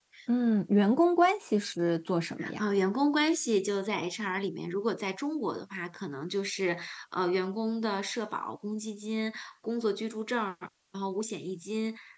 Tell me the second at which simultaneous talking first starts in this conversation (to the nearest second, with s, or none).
none